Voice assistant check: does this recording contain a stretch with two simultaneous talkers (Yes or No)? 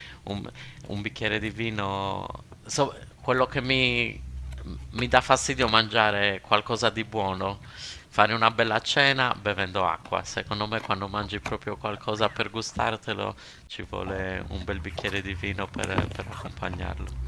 No